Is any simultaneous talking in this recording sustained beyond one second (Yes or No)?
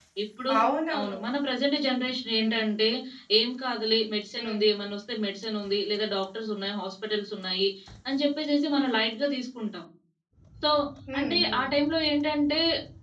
No